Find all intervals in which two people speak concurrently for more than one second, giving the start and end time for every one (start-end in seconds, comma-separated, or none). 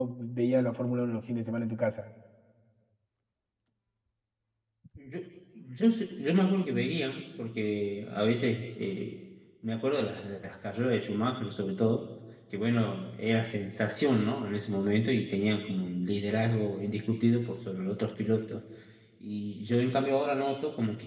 none